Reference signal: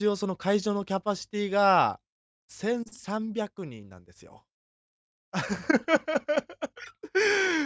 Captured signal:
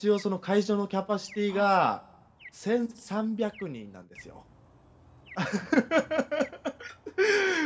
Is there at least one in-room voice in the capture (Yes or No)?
Yes